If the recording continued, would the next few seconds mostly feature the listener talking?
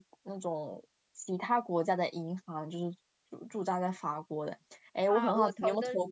Yes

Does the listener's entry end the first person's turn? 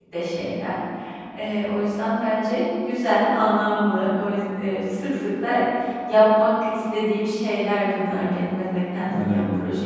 Yes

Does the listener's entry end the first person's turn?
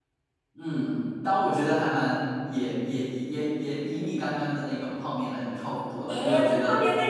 Yes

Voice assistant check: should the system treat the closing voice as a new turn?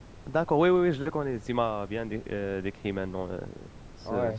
Yes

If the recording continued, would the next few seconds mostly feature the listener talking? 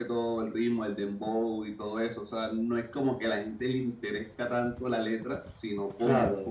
No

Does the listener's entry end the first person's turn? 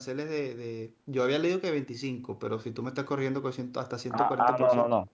Yes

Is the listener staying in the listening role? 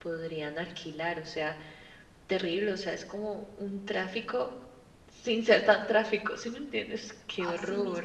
No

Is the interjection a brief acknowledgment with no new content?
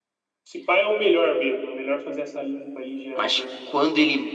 No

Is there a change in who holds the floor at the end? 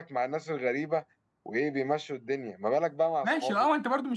Yes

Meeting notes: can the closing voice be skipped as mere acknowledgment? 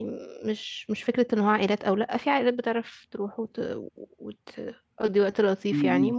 Yes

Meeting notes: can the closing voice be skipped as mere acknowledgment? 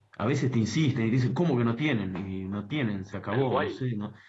Yes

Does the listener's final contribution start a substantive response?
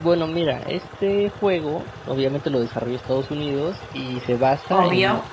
No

